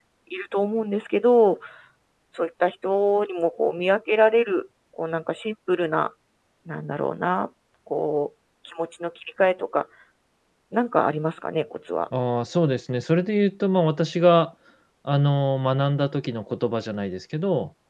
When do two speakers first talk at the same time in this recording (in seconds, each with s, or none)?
none